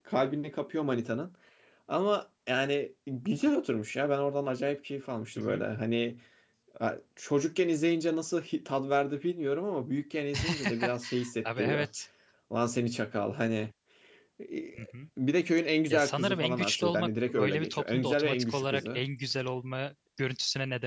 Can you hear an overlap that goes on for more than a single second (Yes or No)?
Yes